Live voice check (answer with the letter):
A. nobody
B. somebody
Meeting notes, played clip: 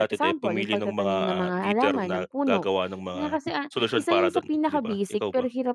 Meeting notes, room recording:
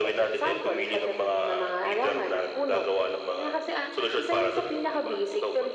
A